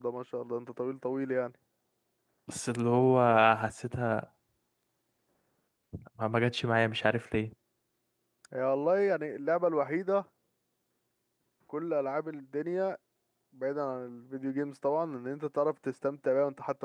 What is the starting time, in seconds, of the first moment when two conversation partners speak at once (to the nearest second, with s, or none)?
none